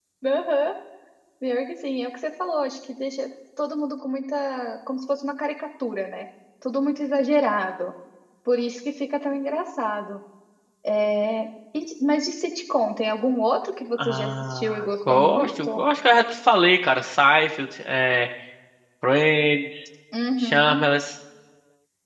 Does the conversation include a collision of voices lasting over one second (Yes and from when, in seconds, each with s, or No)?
Yes, from 14.0 s